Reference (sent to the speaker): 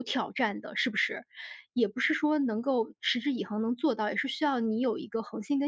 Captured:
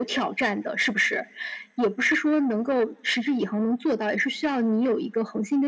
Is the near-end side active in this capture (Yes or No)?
No